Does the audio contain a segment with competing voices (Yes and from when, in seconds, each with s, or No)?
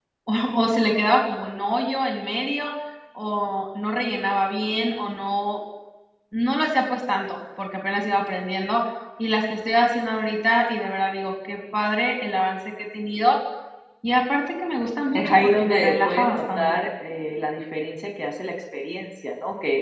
Yes, from 15.1 s